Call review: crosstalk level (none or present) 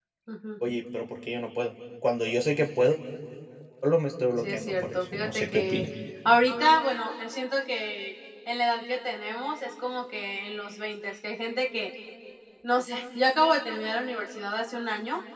present